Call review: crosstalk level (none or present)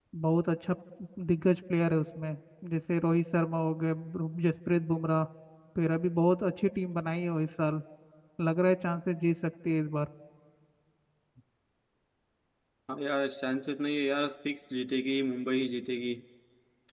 none